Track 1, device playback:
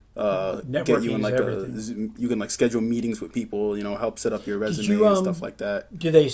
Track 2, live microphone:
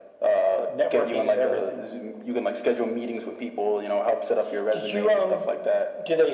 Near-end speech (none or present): none